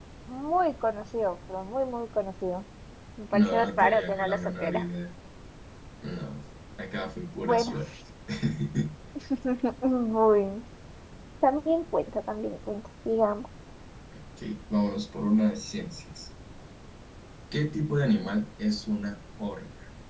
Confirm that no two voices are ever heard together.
No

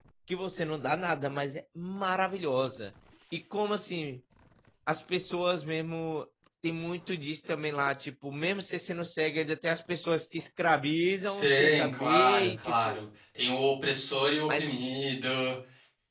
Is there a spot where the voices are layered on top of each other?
Yes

